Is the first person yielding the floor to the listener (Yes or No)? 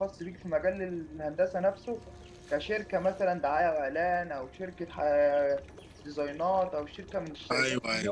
Yes